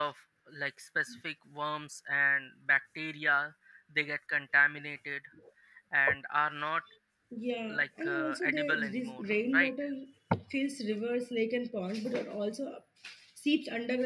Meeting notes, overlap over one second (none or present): present